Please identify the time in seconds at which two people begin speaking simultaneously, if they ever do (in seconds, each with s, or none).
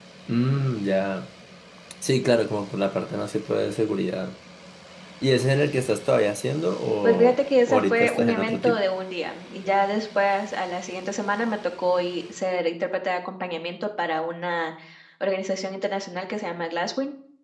7.0 s